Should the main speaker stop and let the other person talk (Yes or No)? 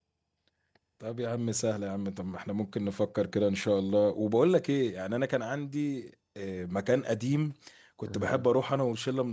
No